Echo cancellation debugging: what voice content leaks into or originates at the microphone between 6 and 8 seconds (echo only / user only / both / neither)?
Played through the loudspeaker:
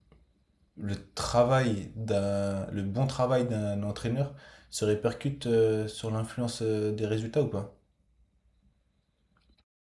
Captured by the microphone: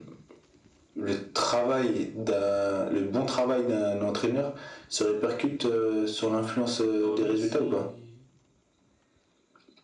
both